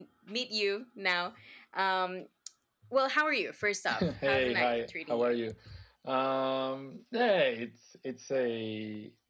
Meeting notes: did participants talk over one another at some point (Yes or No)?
Yes